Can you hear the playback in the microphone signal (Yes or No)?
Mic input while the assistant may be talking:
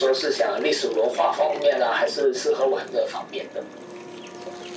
Yes